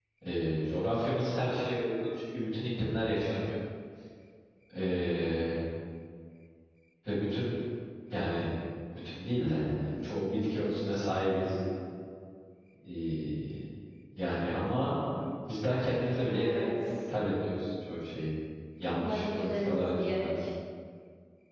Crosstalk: present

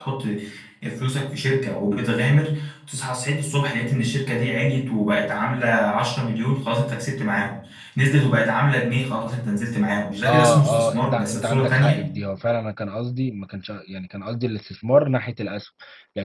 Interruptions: present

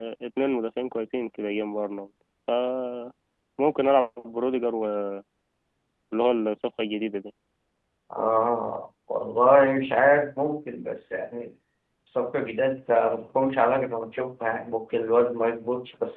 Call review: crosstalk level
none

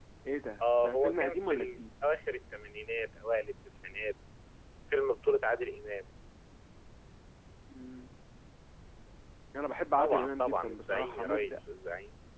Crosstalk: present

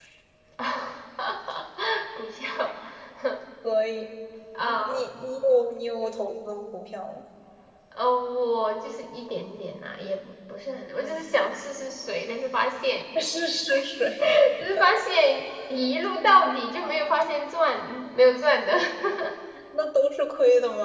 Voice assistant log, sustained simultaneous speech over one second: none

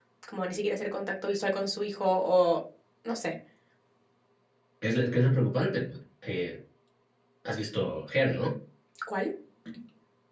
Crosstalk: none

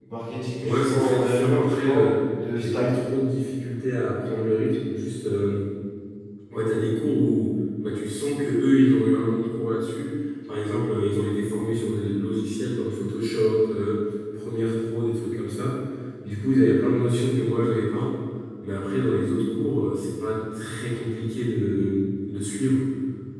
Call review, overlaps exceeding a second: present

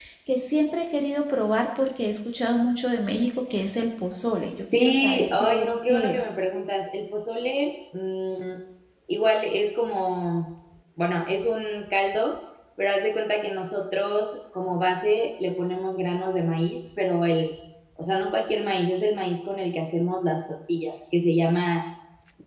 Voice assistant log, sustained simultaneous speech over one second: present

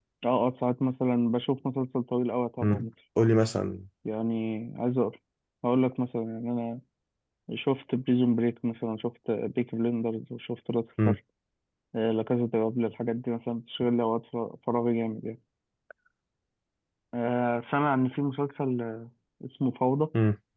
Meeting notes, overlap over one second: none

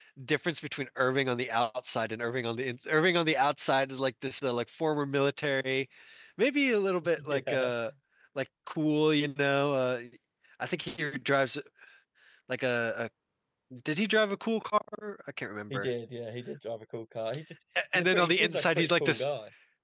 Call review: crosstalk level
present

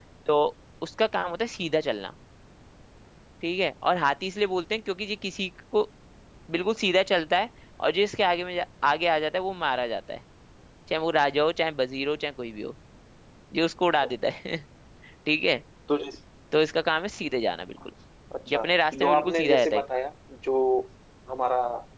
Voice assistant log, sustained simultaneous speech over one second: present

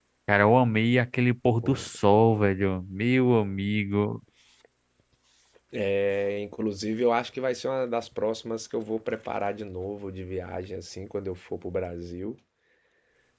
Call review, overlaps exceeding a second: none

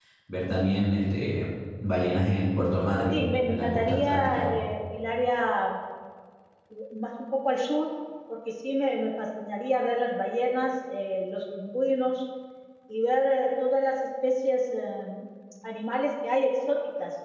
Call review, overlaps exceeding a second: present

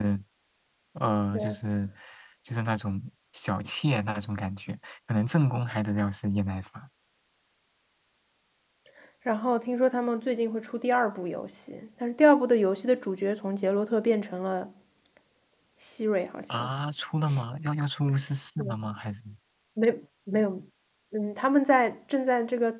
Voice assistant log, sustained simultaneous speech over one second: none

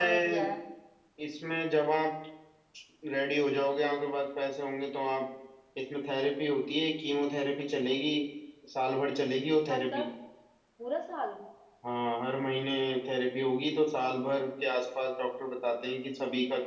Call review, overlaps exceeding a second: none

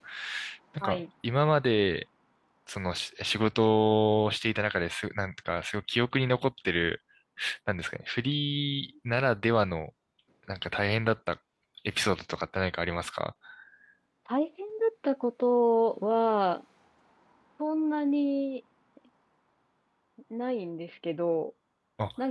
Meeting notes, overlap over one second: none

